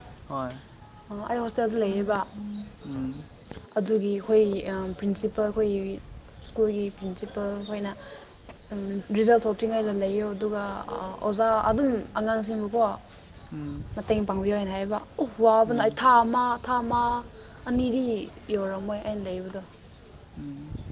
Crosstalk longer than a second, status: none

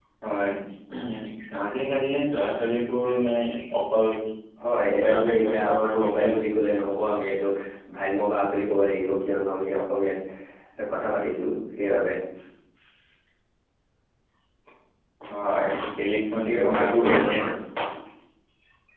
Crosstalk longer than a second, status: present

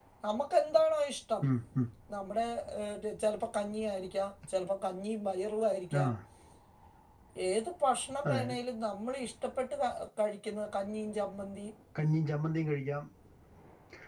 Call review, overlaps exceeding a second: none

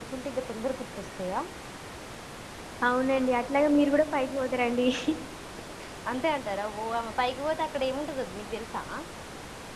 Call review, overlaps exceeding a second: none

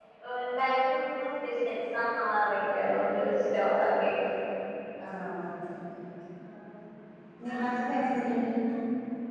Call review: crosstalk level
none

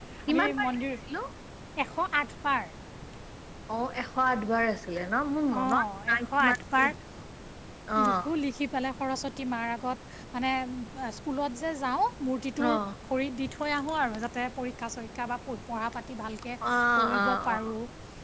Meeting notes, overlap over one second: present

